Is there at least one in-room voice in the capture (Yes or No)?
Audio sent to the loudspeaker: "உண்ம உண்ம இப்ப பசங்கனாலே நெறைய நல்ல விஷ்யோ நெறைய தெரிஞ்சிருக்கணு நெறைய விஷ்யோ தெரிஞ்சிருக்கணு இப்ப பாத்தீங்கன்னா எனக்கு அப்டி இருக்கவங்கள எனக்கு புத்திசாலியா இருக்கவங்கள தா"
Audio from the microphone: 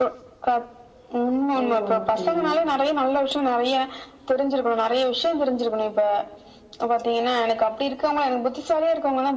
Yes